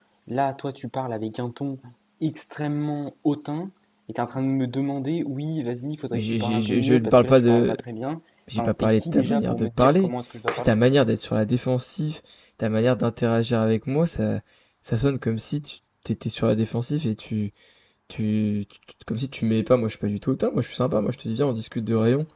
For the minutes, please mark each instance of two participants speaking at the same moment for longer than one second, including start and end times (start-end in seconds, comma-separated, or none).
6.1-7.8, 8.6-10.1